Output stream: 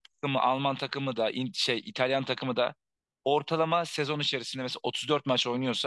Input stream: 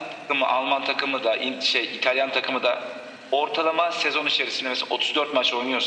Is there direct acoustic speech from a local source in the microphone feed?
No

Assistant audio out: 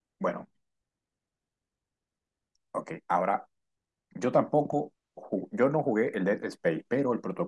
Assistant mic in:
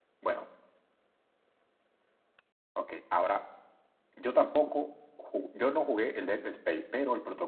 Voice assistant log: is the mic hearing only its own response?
Yes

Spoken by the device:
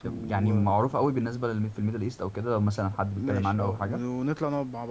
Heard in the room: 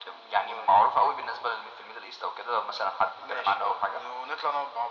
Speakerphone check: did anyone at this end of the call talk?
No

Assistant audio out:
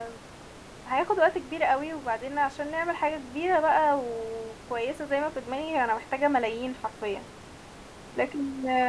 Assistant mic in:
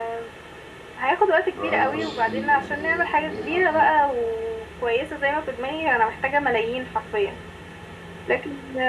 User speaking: Yes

